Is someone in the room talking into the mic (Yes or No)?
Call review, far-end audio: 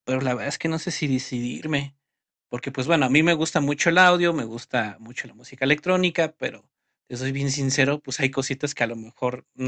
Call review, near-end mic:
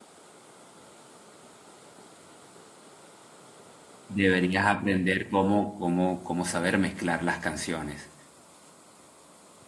Yes